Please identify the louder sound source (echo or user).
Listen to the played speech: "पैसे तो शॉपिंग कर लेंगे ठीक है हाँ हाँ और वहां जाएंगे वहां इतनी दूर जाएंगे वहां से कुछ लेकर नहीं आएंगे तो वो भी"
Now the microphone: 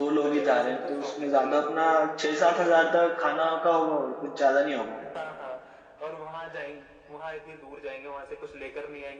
user